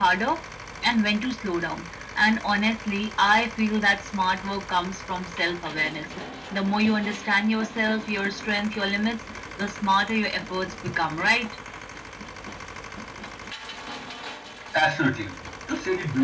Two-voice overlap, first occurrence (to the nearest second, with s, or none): none